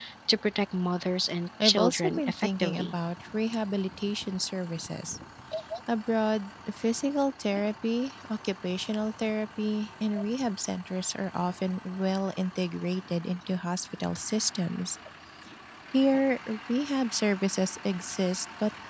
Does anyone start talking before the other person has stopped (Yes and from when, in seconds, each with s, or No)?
Yes, from 1.6 s